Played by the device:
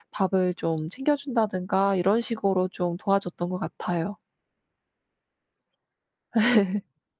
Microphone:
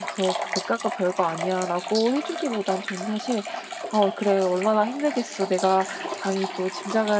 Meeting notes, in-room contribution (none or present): present